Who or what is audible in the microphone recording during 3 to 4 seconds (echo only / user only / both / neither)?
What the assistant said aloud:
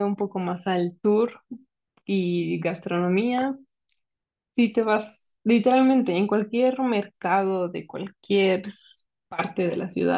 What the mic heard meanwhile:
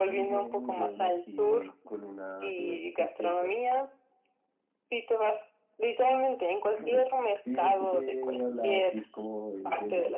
both